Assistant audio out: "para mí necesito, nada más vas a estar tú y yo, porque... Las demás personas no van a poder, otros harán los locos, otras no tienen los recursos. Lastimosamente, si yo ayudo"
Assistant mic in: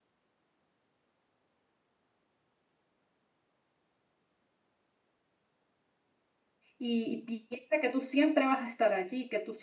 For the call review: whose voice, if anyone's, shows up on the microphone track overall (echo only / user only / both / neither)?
user only